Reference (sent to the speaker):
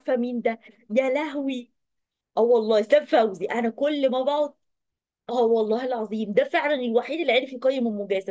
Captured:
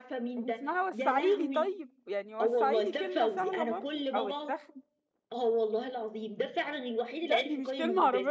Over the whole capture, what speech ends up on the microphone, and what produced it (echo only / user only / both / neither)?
both